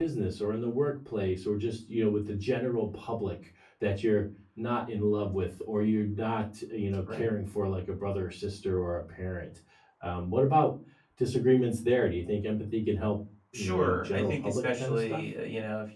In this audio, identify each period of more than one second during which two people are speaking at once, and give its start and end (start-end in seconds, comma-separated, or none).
13.5-15.2